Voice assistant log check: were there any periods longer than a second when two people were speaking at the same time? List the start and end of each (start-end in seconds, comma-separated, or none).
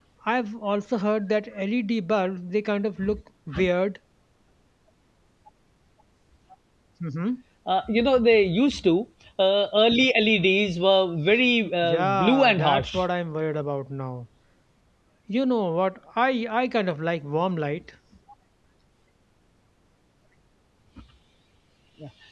11.8-13.0